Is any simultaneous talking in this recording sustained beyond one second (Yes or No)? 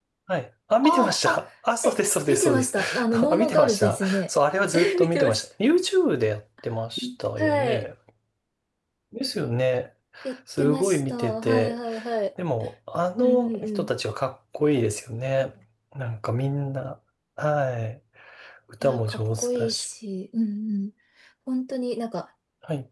Yes